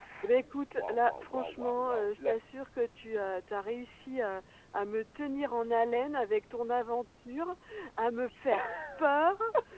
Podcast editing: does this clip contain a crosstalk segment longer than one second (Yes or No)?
Yes